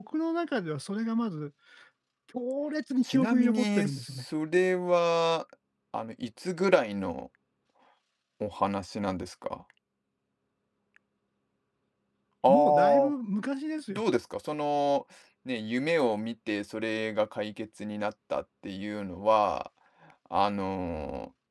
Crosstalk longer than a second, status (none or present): present